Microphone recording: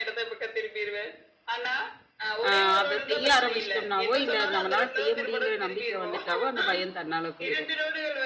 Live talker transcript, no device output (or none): அ அத செய்ய ஆரம்பிச்சுட்டோம்னாவோ, இல்ல நம்மனால செய்ய முடியுங்கிற நம்பிக்கை வந்துட்டாவோ, அந்த பயம் தன்னால போயிரும்.